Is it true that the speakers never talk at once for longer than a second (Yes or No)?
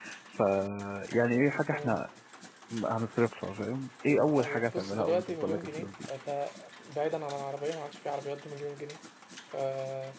No